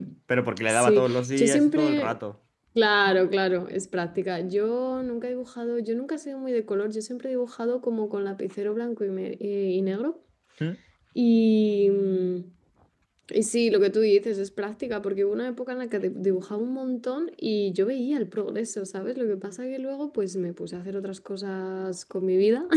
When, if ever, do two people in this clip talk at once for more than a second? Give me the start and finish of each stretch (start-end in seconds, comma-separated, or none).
0.7-2.2